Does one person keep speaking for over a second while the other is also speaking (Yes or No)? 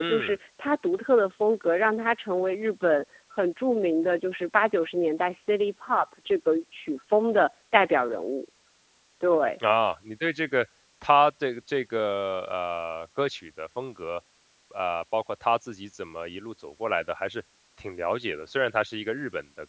No